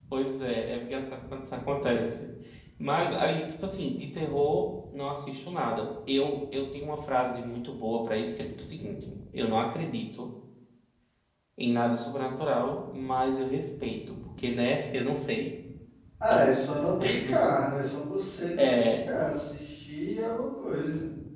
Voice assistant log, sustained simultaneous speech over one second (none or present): none